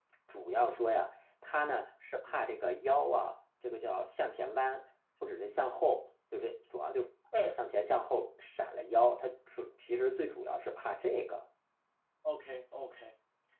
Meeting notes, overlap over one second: none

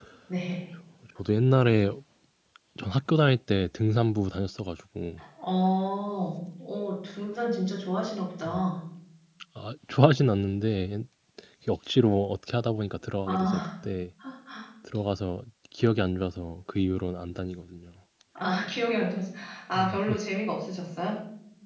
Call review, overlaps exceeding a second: none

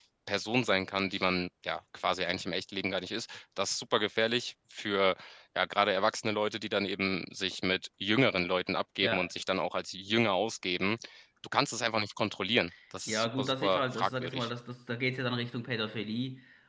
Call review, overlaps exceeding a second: present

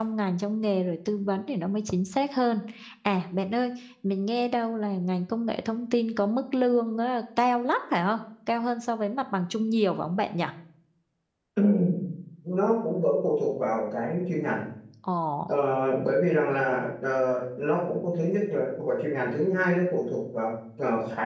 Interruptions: none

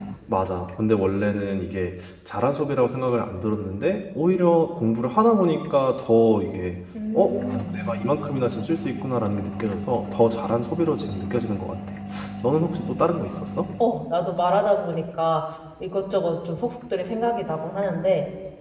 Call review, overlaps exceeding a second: none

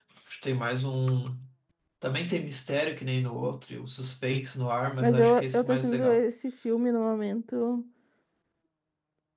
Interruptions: present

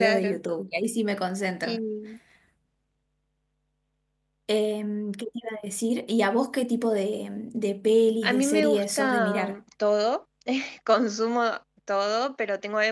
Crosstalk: present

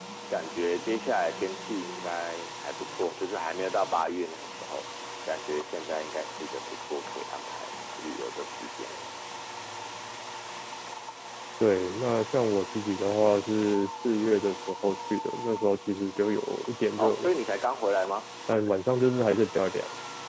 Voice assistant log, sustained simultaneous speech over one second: none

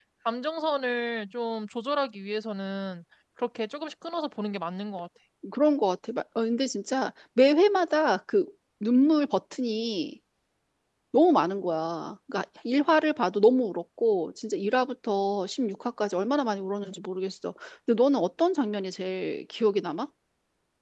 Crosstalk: none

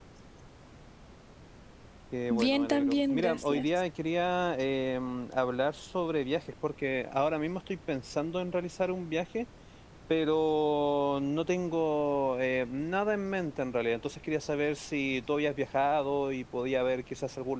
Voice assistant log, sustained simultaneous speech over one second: present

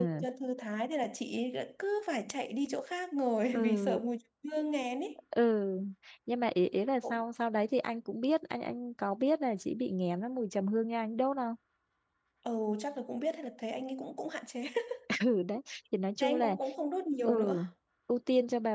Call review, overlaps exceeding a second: none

